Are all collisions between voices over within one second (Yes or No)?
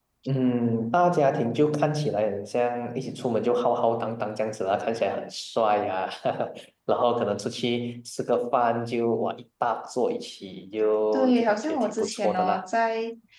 No